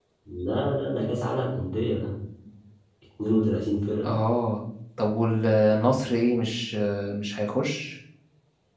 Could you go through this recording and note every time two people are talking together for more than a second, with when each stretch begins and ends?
none

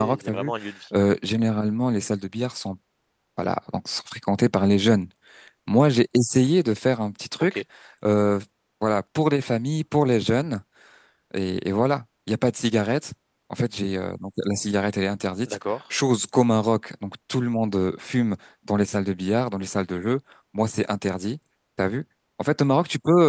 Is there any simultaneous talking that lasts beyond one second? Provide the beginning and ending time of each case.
none

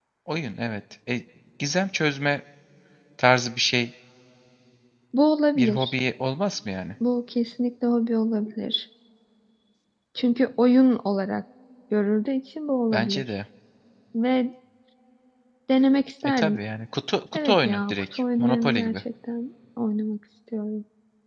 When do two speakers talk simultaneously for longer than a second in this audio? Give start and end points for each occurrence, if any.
17.4-19.0

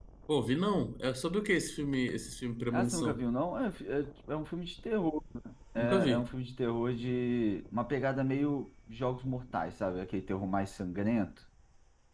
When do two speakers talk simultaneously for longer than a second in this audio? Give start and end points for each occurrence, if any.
none

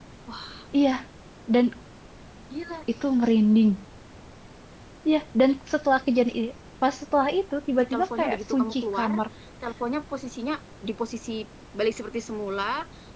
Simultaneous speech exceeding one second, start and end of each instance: 7.8-9.1

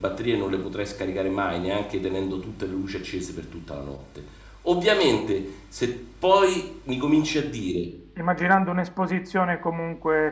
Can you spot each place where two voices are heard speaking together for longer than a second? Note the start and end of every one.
none

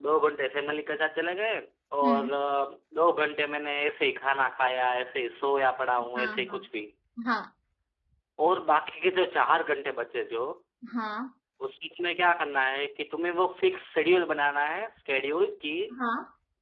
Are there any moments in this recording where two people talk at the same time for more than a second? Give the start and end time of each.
none

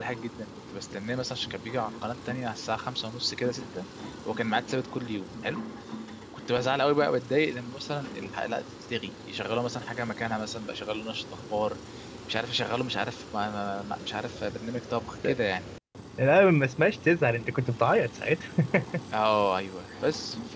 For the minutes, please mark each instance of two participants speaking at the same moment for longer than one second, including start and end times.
none

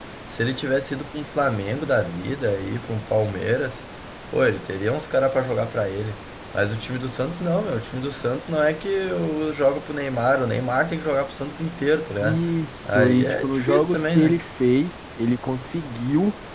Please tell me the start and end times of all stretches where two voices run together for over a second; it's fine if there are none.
12.8-14.4

